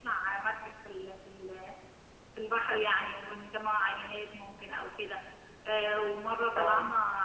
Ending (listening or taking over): listening